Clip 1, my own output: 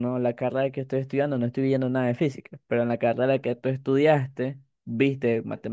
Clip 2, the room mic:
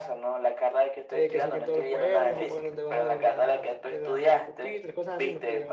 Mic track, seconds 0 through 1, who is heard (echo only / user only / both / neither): echo only